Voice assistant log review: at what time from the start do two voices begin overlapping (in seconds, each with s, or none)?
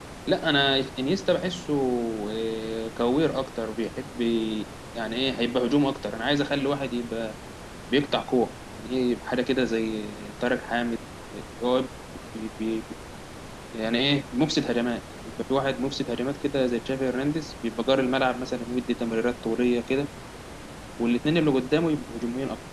none